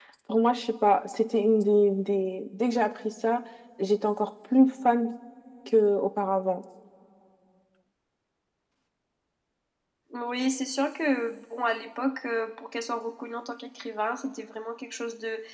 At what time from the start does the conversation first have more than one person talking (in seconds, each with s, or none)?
none